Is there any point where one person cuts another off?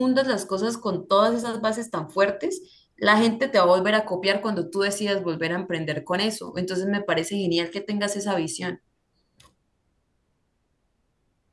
No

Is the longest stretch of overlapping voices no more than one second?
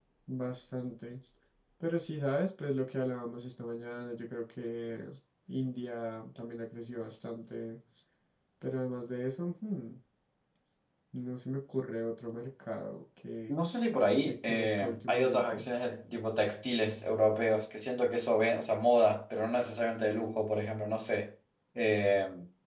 No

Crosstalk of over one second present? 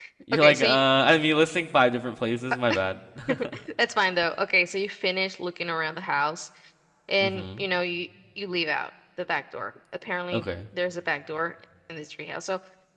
No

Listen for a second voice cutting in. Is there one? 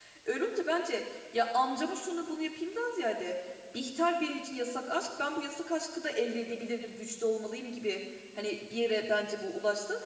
No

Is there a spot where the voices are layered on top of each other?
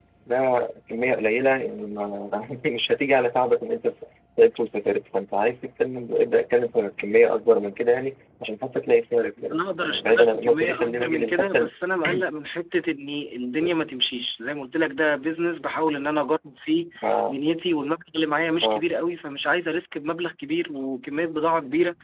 Yes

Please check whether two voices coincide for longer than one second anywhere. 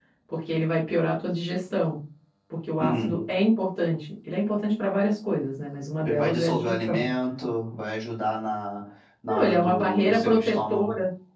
Yes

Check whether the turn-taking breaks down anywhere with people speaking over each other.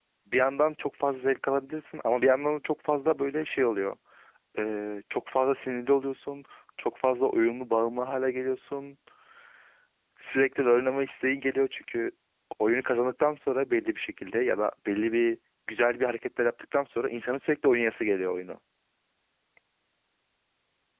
No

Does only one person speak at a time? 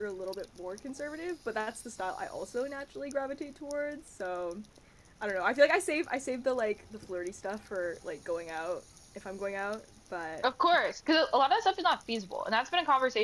Yes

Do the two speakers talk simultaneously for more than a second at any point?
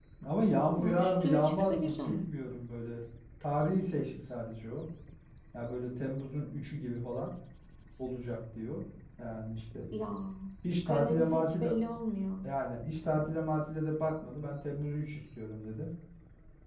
Yes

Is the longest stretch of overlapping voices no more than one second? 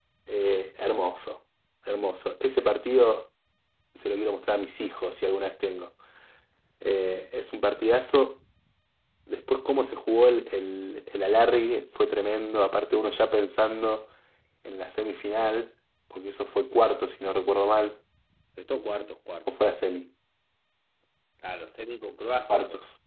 Yes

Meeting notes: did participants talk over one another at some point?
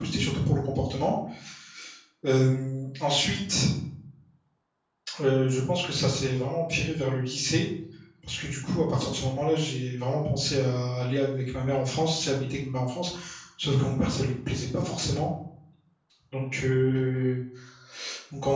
No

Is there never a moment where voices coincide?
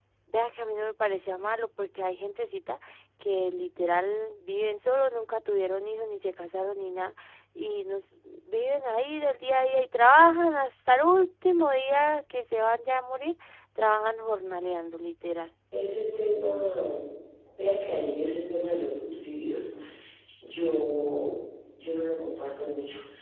Yes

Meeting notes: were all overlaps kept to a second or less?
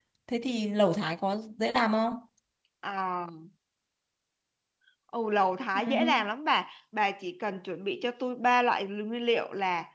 Yes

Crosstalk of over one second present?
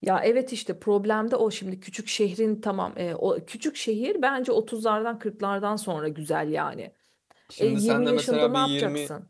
Yes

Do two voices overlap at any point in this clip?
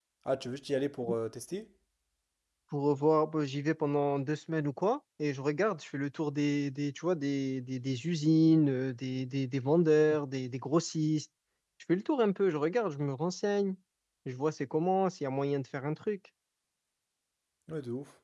No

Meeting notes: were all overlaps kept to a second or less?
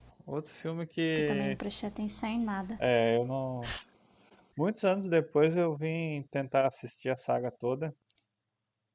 Yes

